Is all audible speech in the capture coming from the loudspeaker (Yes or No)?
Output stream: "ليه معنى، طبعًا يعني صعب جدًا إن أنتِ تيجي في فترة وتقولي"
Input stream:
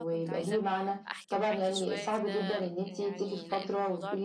No